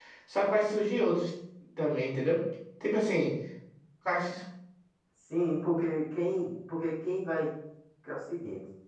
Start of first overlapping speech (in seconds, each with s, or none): none